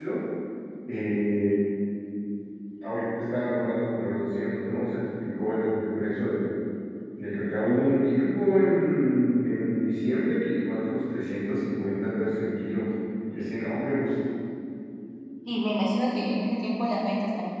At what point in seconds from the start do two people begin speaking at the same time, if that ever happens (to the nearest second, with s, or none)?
none